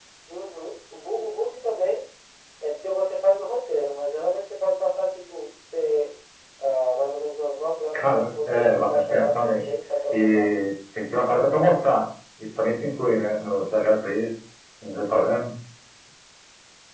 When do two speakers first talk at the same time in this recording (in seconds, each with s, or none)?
7.9 s